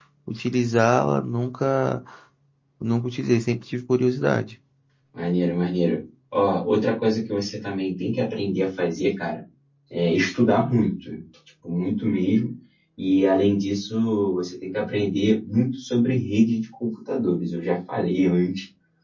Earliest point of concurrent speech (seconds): none

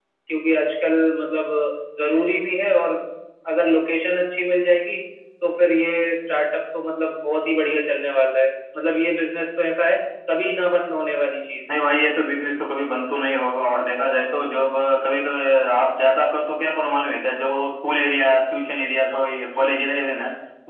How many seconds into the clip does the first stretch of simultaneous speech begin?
none

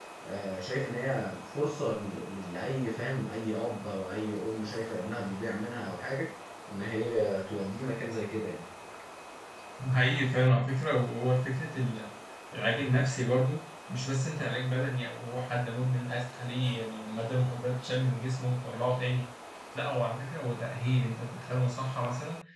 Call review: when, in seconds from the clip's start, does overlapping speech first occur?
none

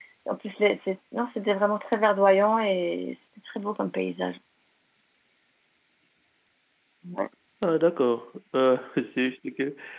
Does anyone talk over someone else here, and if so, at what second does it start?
none

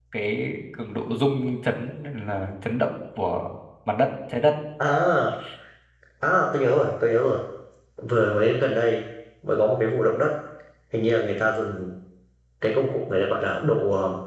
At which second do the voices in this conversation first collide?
none

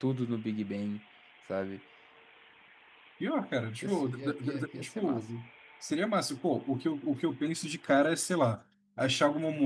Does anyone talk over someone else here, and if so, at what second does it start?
3.8 s

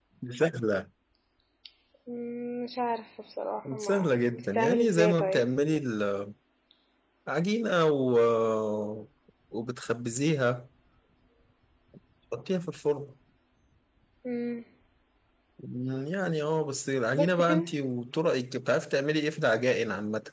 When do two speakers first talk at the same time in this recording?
3.7 s

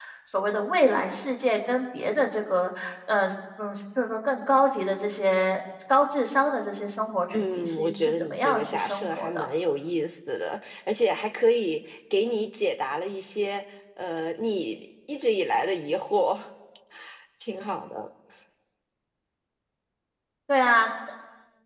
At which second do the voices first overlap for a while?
7.3 s

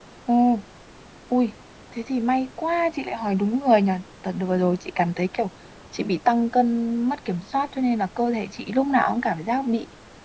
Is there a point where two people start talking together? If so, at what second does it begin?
none

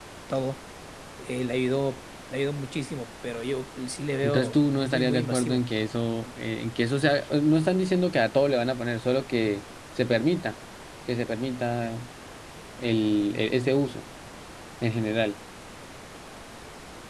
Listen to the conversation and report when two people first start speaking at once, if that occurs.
4.2 s

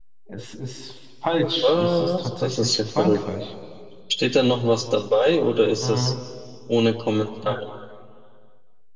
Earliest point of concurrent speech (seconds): 1.6 s

